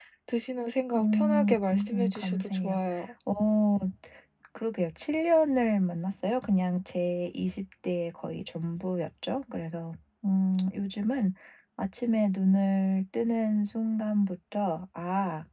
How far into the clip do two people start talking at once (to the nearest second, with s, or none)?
1 s